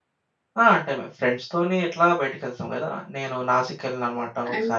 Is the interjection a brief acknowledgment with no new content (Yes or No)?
No